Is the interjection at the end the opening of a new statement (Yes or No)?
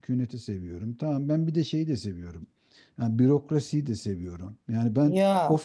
No